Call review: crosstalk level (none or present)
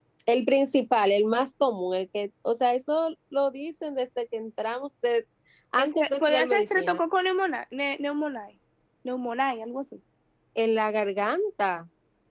present